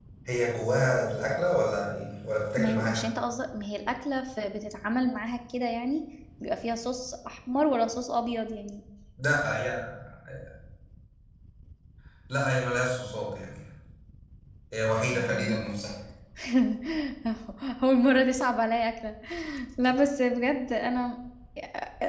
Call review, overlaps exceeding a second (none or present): none